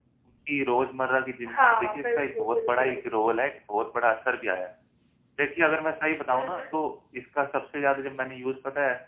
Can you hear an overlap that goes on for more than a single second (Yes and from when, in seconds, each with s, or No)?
Yes, from 1.5 s